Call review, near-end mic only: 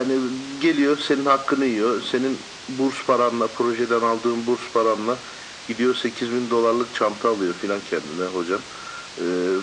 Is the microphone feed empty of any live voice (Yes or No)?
Yes